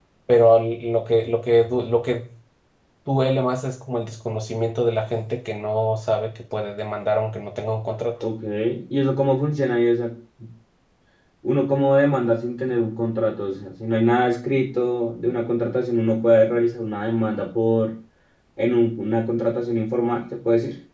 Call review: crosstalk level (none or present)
none